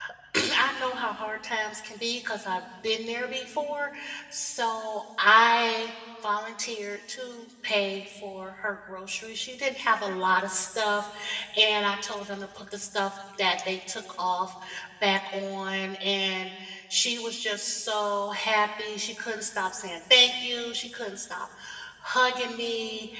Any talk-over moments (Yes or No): No